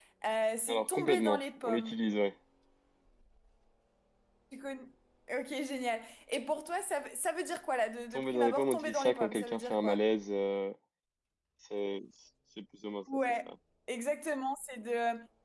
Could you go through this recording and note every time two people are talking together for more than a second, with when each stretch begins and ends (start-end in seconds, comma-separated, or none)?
0.7-2.0, 8.1-10.0